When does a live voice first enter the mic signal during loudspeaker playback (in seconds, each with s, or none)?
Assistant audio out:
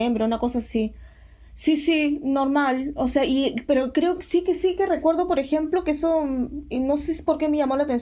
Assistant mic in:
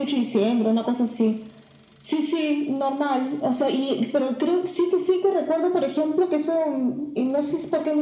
none